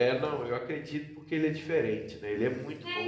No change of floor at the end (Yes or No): No